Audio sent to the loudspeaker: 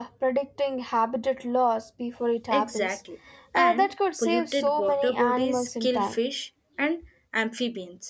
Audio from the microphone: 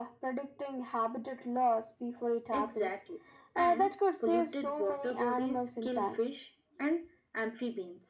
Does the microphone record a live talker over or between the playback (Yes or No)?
No